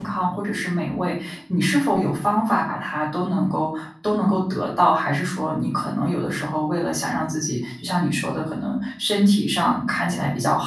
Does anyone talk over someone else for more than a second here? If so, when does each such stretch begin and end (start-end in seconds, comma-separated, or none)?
none